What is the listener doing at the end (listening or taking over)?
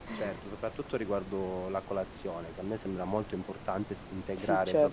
listening